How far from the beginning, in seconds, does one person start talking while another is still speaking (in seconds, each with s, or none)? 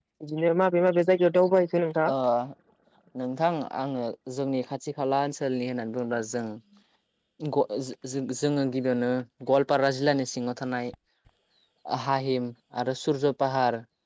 none